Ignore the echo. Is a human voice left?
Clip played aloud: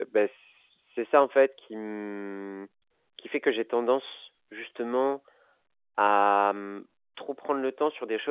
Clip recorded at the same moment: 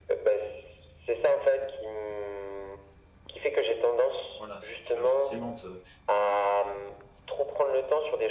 Yes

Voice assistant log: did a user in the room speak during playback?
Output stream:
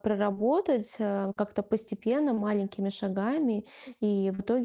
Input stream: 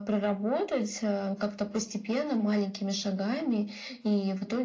No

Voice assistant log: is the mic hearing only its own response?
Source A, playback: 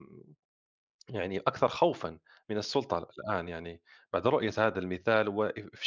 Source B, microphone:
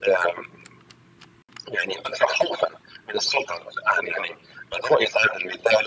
No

